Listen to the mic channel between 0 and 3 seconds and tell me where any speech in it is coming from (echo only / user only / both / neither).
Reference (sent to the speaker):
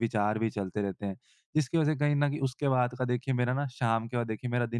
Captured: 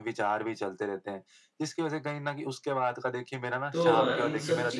echo only